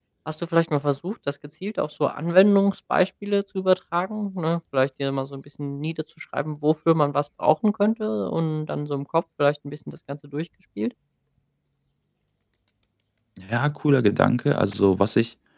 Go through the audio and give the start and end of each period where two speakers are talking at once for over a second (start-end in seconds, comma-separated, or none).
none